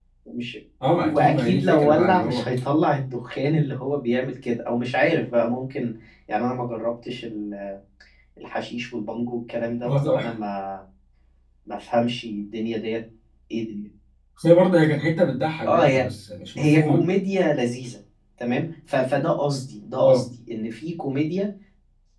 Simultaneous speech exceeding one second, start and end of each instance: 1.0-2.5

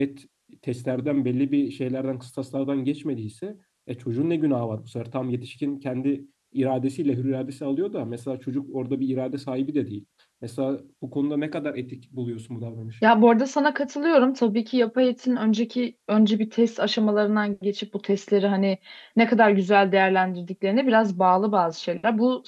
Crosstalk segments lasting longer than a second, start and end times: none

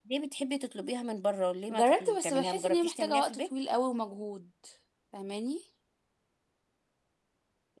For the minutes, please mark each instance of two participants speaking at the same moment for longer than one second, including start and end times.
1.7-3.4

